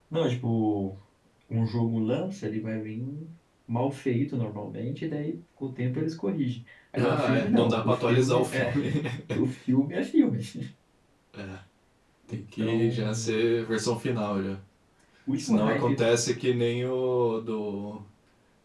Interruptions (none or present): present